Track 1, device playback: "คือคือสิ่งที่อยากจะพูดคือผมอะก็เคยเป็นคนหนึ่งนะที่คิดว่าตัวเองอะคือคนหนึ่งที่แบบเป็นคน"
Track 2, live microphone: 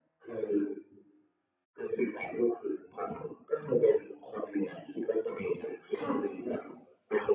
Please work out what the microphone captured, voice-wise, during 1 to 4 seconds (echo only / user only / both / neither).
echo only